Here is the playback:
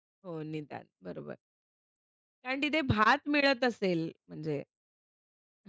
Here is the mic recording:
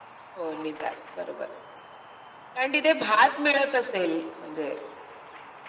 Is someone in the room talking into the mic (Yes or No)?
No